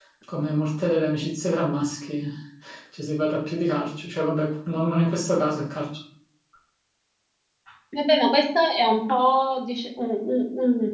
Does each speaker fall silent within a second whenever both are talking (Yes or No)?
Yes